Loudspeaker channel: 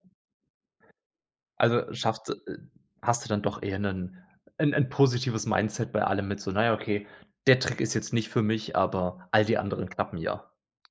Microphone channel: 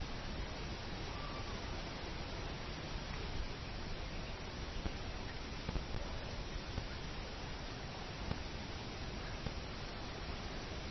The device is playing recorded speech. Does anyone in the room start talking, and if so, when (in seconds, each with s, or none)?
none